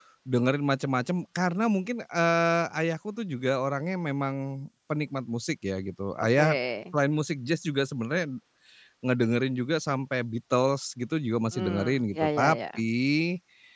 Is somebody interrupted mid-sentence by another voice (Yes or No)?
Yes